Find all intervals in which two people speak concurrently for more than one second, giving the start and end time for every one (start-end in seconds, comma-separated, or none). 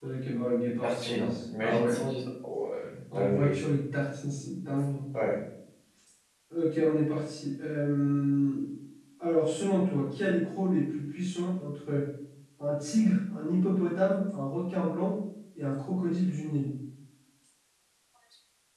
0.8-2.1